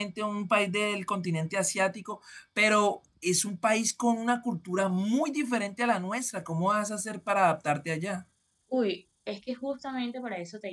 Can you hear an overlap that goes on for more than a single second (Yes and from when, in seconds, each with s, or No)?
No